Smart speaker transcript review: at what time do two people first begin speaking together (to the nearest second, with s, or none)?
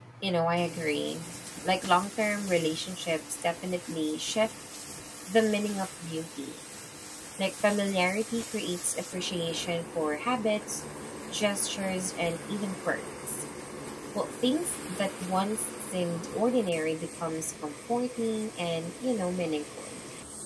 none